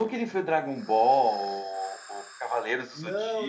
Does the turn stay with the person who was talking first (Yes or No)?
No